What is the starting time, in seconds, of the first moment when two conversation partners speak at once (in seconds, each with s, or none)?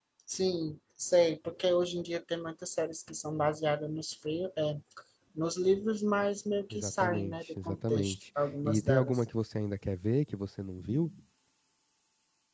6.7 s